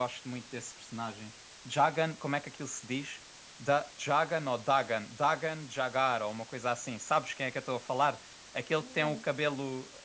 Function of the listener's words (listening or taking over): listening